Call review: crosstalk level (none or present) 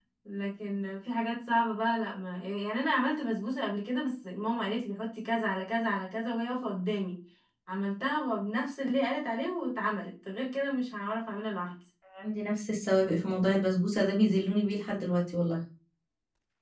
none